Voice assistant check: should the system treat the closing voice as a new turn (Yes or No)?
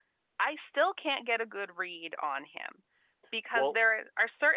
No